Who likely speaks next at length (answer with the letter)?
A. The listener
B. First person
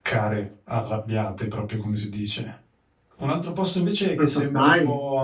B